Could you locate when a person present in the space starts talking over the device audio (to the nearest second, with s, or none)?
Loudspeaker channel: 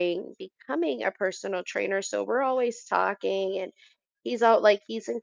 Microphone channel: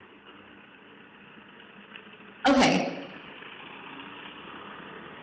2 s